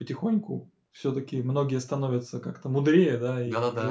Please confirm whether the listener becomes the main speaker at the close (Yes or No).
No